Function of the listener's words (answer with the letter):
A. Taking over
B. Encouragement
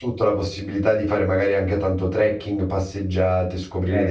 B